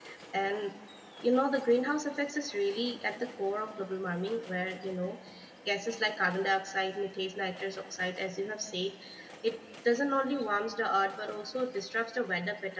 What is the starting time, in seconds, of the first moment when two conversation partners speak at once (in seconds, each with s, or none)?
none